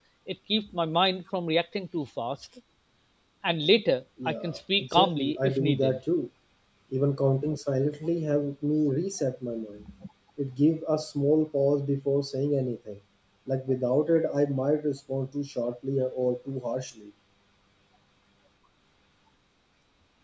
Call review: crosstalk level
present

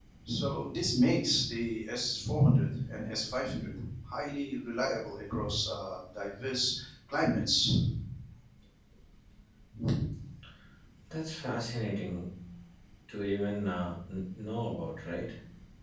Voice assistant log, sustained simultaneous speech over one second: none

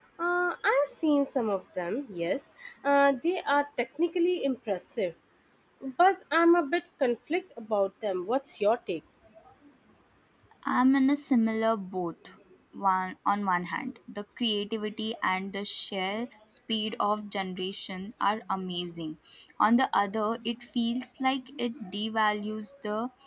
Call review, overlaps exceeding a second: none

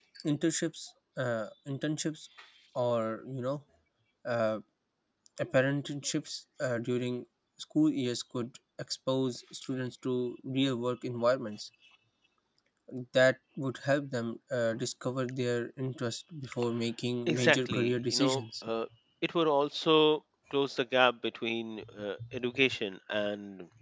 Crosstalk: present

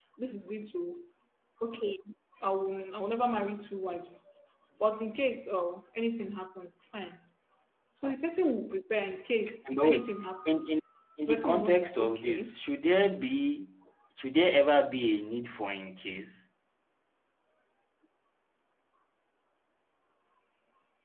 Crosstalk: present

